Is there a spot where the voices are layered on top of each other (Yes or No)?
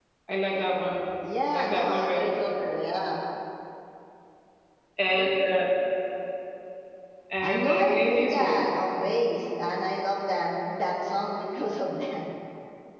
Yes